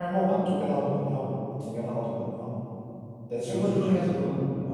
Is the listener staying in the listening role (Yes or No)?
No